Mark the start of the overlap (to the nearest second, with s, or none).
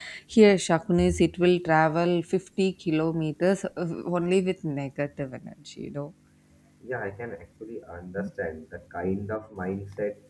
none